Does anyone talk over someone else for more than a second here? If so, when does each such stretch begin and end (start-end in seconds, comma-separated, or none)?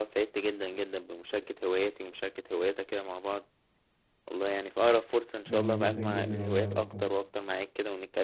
5.5-7.0